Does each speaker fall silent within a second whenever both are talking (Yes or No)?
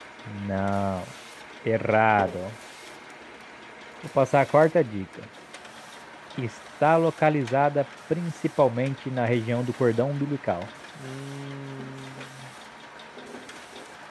Yes